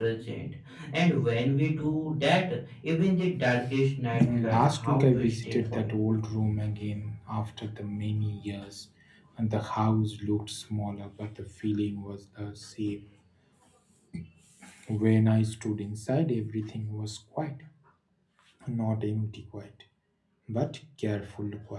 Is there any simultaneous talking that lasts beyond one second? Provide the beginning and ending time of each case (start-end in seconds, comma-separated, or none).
4.1-5.9